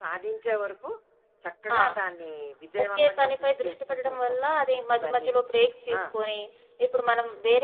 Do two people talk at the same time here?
Yes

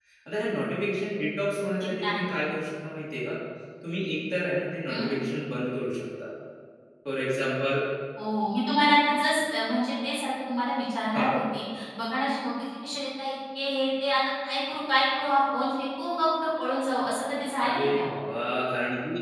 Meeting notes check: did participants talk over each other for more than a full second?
No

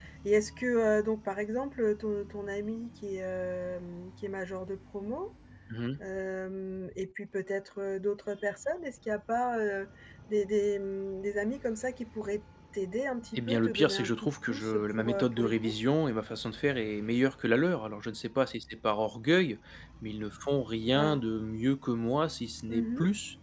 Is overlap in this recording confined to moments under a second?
No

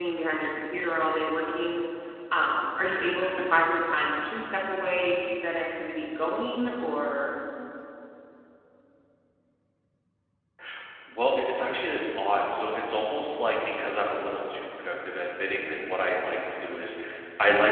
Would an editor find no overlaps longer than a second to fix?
Yes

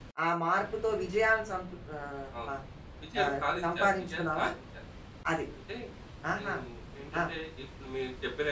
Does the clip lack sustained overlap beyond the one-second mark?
No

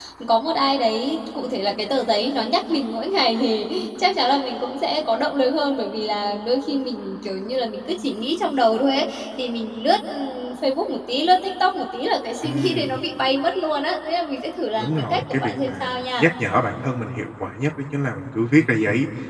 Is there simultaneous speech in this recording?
Yes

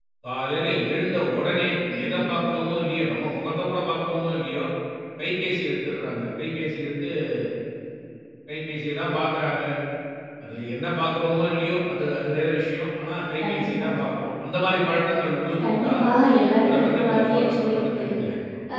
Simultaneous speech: Yes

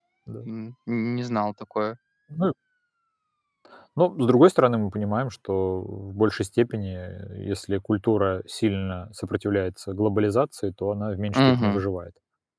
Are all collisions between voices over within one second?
Yes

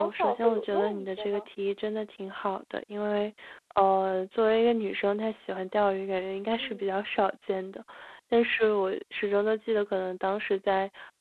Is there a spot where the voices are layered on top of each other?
Yes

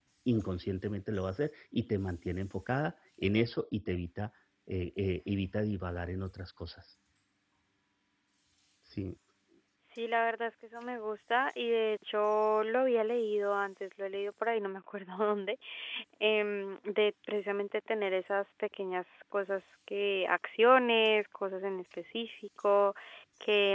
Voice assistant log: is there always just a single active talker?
Yes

